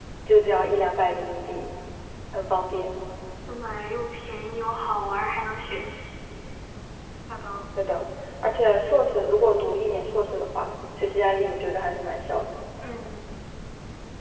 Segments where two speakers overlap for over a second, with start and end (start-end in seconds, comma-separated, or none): none